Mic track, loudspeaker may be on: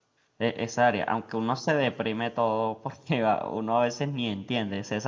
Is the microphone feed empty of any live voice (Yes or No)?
No